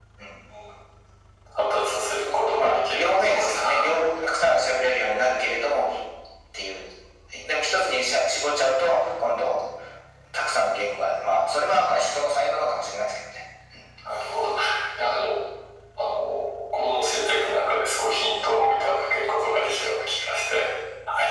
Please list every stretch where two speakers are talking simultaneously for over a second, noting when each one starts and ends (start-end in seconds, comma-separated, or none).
2.2-4.0